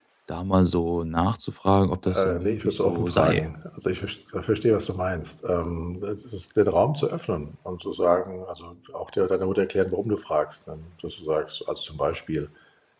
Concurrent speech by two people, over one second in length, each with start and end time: 2.1-3.5

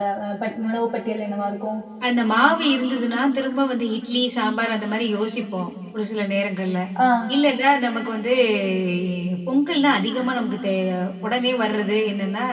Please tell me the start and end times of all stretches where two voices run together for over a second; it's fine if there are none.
none

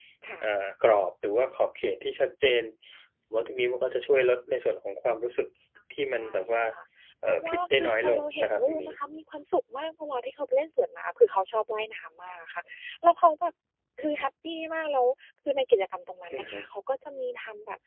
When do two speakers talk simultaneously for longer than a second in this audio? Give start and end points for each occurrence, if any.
7.3-8.9

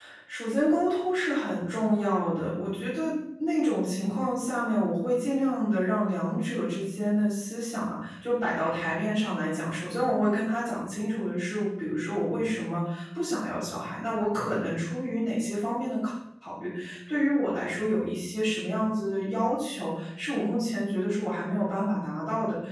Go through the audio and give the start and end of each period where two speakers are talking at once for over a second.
none

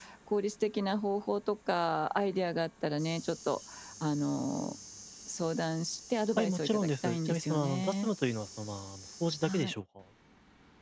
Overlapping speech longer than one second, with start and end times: 6.4-8.1

